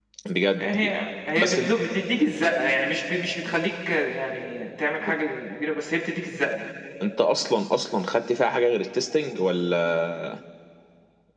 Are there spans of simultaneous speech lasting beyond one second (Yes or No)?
No